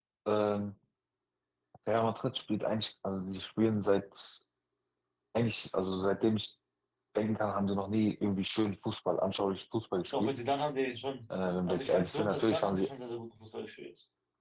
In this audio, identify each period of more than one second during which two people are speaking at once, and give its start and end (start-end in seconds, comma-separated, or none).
11.7-12.9